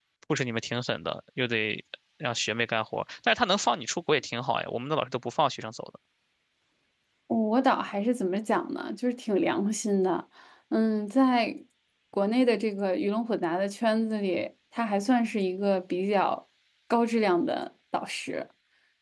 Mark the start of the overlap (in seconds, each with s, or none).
none